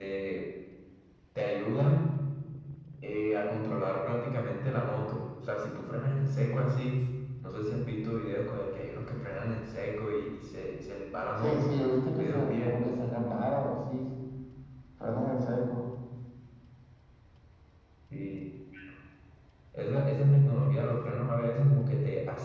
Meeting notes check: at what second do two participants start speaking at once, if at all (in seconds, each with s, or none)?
11.4 s